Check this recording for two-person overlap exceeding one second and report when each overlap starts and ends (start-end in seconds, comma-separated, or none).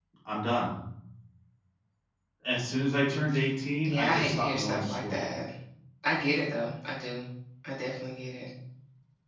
3.8-5.2